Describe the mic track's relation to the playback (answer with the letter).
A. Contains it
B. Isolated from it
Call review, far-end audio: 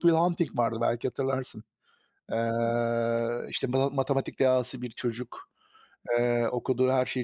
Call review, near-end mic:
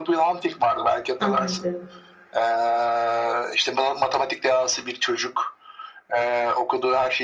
A